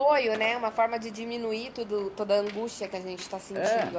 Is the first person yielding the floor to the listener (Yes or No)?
Yes